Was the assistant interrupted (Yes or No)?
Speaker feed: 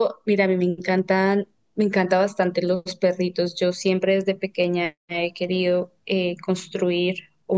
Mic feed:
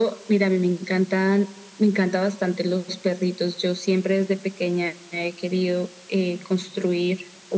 No